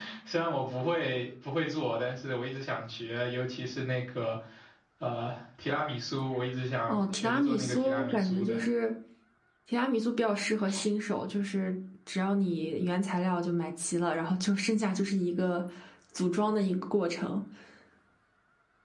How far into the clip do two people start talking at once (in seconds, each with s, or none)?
6.9 s